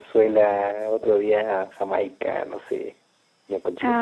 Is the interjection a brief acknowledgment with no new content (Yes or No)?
No